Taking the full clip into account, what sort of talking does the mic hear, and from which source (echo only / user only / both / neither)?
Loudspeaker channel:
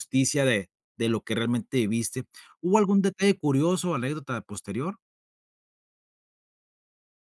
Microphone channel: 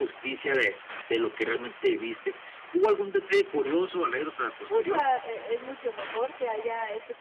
both